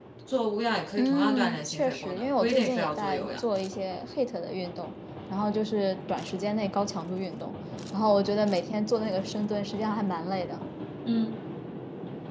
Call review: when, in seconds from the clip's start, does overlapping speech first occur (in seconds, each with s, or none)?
1.0 s